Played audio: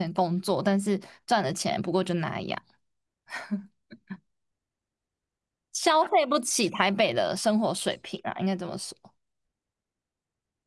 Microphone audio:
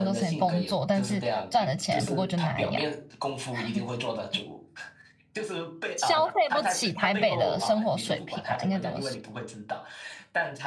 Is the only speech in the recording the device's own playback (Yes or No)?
No